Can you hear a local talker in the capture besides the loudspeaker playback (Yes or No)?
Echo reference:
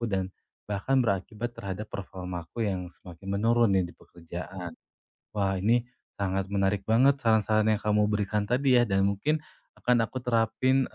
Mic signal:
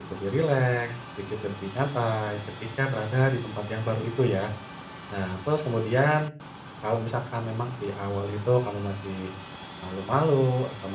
Yes